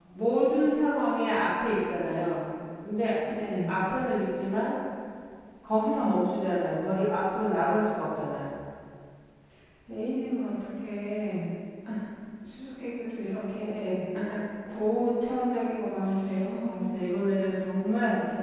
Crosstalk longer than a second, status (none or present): none